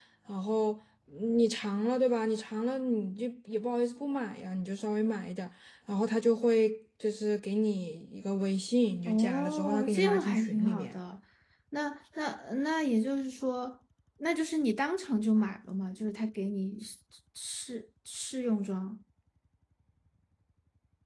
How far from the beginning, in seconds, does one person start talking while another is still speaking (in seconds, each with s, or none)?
9.0 s